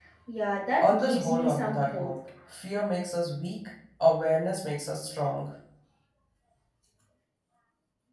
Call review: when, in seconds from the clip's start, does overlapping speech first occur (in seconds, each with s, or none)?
0.8 s